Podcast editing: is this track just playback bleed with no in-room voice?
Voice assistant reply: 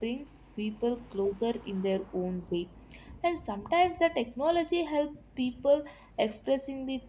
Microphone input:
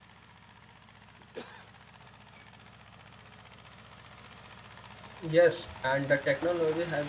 No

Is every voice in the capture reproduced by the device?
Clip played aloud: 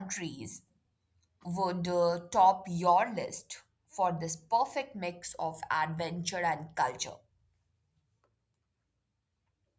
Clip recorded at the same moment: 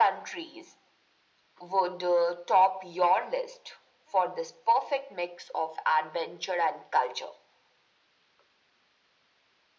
Yes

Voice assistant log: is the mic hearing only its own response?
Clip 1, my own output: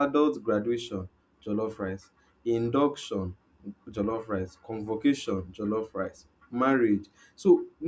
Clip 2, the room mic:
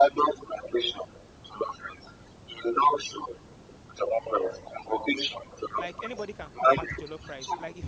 No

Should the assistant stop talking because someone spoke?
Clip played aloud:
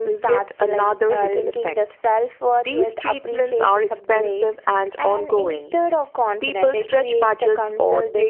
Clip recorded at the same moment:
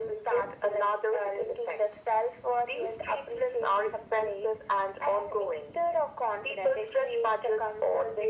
No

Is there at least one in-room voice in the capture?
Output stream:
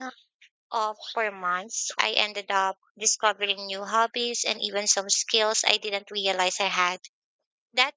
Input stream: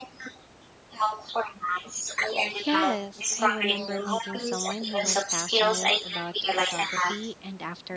Yes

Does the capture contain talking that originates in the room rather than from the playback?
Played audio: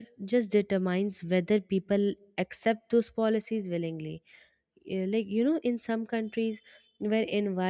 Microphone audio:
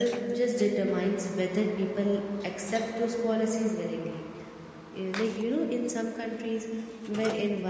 No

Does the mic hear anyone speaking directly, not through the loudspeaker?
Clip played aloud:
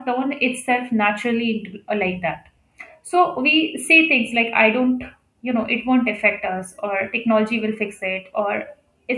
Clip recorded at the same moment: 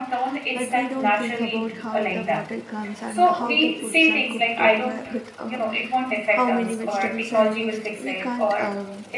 Yes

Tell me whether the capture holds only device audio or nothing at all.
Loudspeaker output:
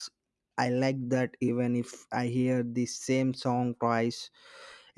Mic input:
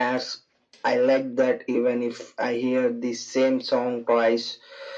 Yes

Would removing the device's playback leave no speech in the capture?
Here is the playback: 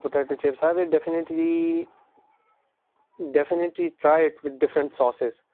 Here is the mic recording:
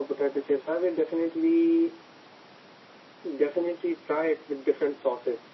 Yes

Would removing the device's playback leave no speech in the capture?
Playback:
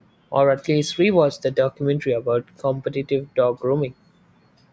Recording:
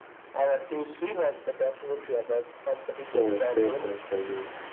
No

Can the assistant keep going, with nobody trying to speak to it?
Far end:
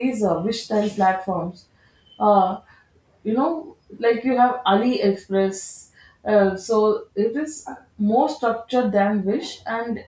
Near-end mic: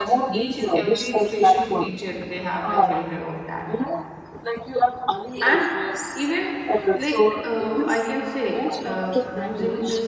No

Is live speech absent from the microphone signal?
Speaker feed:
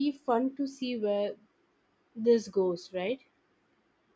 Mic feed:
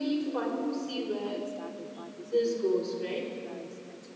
No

